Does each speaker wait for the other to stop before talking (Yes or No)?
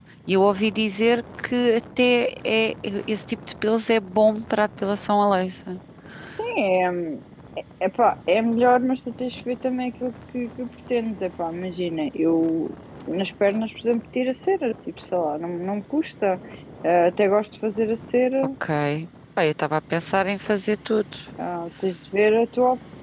Yes